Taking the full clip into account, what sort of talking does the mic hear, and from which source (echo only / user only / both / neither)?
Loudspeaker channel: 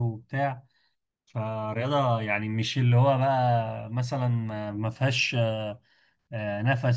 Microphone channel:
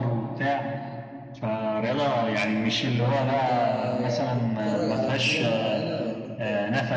both